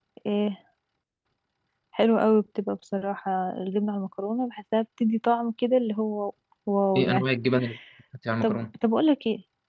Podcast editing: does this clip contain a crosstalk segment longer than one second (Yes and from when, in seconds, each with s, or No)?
No